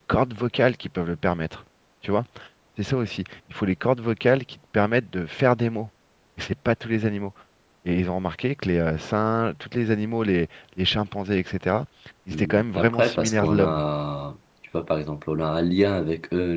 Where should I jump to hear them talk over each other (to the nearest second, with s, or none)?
12 s